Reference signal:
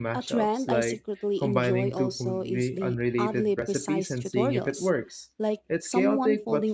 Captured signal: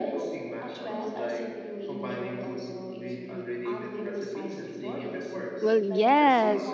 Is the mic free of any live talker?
No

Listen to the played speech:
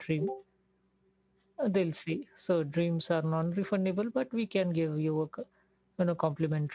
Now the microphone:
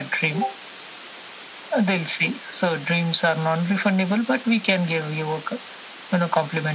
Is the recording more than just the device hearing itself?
No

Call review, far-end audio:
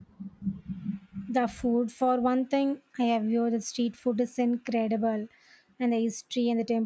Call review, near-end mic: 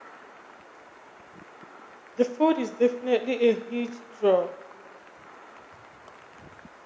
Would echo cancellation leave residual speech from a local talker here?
Yes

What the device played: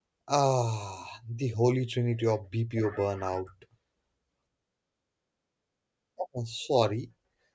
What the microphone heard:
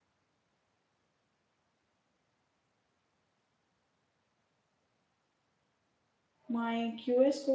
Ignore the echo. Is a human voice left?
Yes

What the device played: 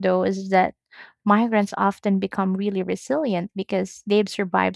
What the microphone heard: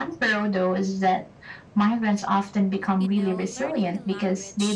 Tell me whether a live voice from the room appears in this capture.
Yes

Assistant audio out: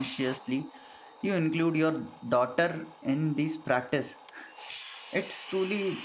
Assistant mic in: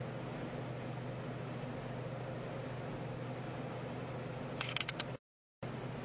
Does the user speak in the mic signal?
No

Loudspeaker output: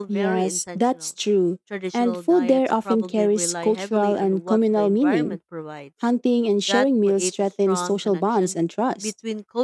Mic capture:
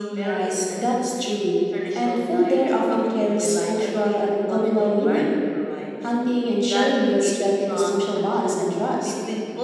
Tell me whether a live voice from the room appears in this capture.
No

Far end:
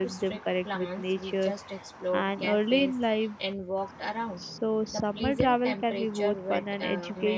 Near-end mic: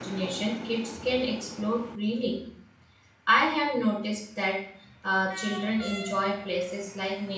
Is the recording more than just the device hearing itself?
Yes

